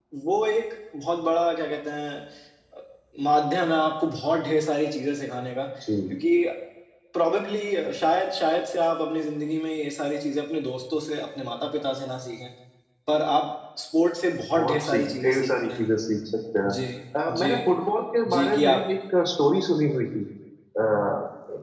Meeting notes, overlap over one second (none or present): present